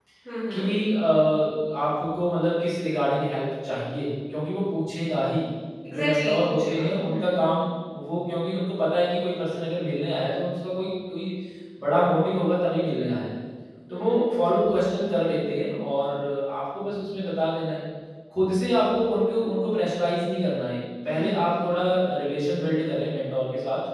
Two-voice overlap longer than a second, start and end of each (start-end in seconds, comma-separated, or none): 5.9-7.4